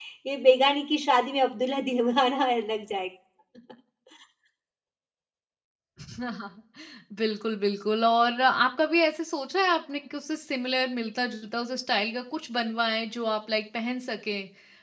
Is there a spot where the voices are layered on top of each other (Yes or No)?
No